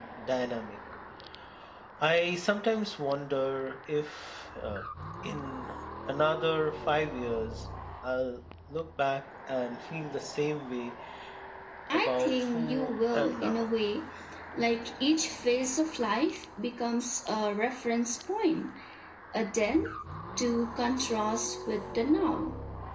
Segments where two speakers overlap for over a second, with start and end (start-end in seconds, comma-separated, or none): 11.9-13.7